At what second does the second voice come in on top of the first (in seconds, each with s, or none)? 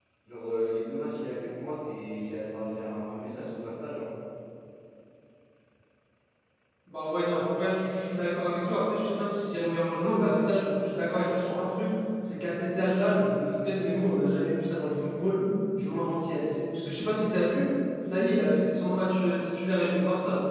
none